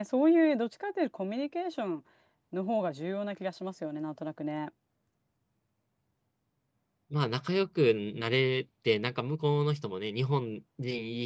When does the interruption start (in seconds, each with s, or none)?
none